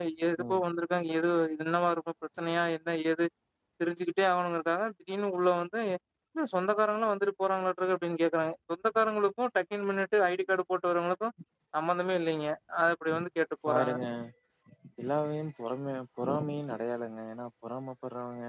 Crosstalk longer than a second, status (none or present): none